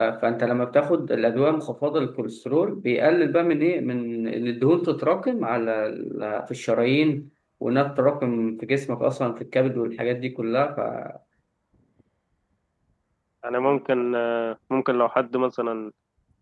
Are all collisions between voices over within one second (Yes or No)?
Yes